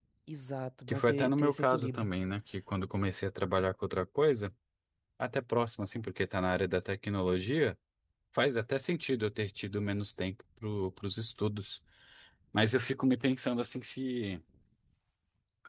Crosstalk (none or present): present